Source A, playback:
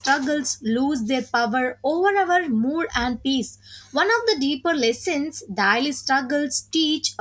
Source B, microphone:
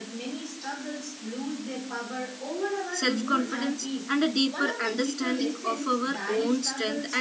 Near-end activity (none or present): present